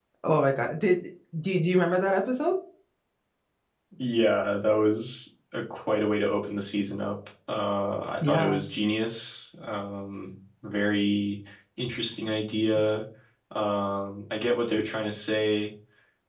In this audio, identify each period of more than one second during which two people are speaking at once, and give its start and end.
none

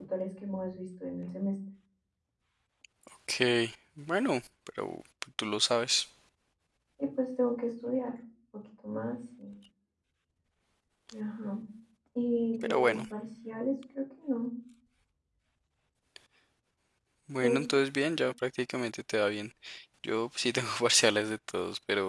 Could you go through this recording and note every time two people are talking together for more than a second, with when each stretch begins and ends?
none

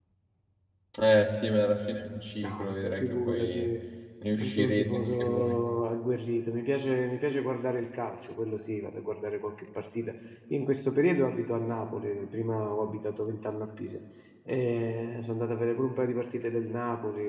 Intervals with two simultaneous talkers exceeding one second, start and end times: 2.4-3.7, 4.4-5.6

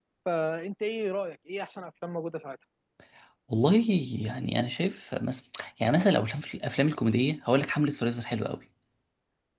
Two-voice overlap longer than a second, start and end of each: none

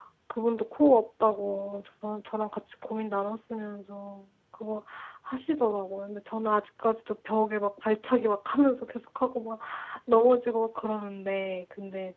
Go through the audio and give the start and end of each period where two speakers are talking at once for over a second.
none

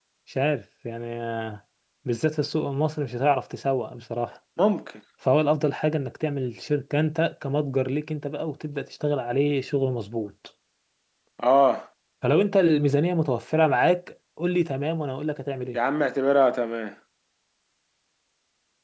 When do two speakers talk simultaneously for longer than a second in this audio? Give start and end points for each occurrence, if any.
none

